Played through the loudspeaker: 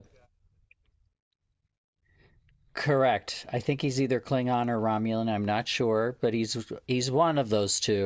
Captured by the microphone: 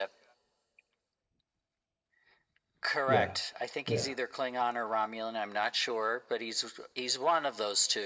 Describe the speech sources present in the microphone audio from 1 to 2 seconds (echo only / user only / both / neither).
neither